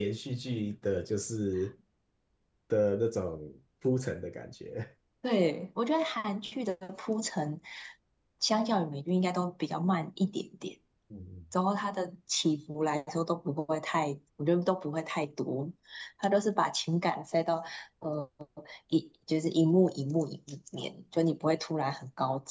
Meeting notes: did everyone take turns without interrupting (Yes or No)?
Yes